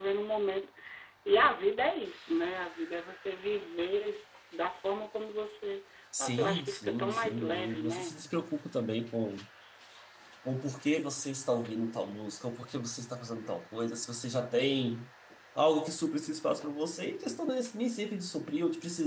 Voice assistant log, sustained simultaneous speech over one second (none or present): present